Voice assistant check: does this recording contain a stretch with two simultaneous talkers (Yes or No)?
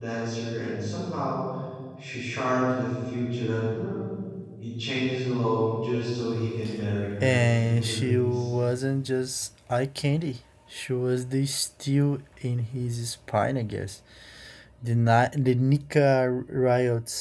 Yes